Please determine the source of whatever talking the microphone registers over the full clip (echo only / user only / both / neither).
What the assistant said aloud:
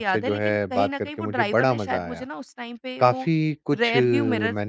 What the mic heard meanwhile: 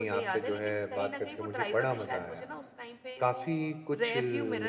echo only